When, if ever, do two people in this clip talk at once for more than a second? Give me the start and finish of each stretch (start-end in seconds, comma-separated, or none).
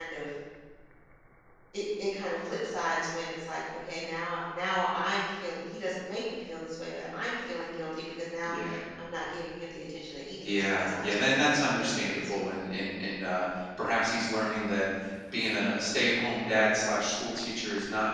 10.4-12.5